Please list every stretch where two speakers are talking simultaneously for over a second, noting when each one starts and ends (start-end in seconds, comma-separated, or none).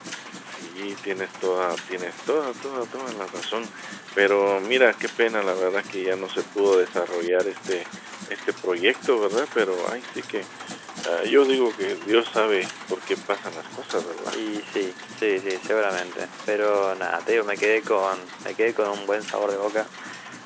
none